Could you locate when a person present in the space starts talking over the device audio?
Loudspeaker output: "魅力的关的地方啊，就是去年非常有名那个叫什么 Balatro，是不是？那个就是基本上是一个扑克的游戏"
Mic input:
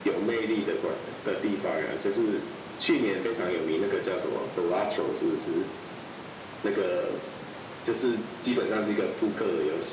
none

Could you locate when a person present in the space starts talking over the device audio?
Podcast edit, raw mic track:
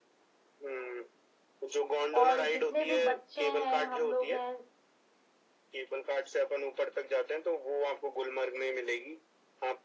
2 s

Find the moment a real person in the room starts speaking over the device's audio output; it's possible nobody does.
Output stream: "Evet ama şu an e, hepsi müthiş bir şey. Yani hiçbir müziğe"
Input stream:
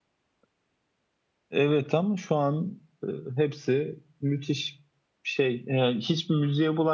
none

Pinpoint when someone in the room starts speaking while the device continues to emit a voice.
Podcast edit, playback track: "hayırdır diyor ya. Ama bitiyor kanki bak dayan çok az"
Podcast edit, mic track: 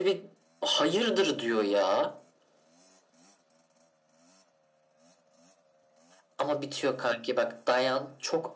none

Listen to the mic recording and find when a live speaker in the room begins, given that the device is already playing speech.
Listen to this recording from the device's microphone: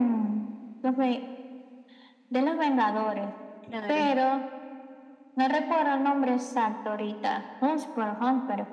4 s

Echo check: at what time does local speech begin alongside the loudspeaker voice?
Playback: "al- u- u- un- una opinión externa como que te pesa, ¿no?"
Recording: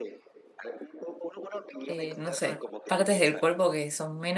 2 s

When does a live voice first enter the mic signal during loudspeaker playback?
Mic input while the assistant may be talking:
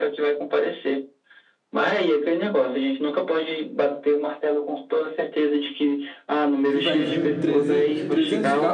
7 s

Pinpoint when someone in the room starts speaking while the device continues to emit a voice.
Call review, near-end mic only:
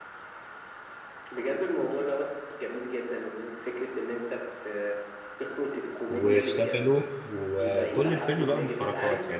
6 s

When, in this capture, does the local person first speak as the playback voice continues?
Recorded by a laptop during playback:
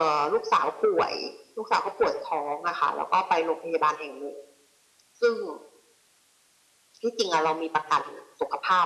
none

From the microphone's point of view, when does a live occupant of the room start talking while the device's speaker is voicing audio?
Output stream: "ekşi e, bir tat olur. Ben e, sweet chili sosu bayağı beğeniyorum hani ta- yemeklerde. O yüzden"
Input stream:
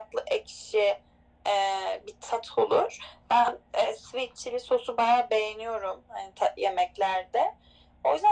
none

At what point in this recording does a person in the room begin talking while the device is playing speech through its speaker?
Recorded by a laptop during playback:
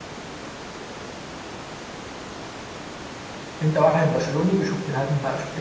4 s

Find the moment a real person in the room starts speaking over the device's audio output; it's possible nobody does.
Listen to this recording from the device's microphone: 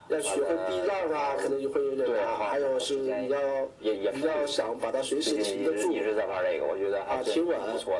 none

